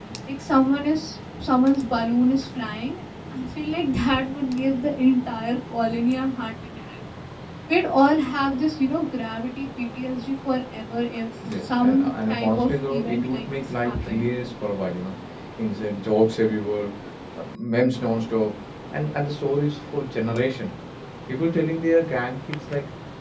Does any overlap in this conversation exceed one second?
Yes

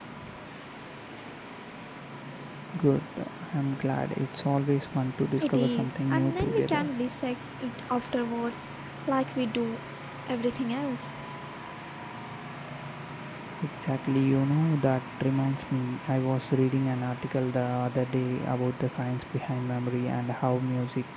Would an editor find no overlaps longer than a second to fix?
No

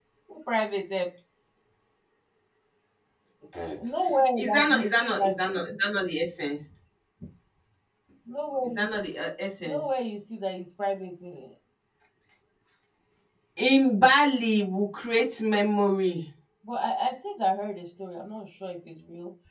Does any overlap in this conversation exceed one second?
Yes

